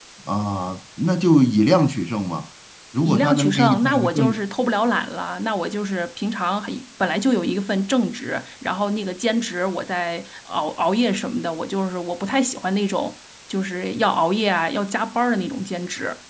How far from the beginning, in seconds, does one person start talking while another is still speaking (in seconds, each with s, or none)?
3.0 s